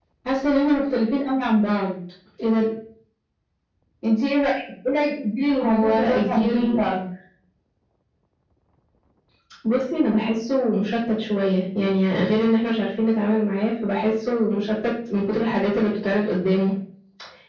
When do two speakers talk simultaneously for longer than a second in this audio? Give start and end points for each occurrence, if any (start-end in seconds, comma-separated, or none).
5.6-6.9